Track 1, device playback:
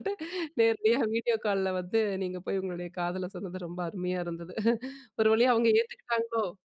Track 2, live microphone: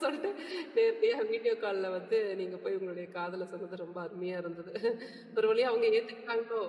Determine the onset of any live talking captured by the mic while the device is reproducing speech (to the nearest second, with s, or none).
none